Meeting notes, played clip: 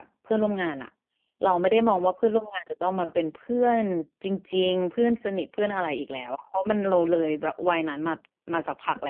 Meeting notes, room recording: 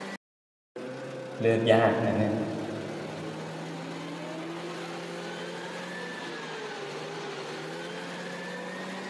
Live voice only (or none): เลือกยากนะเนี่ย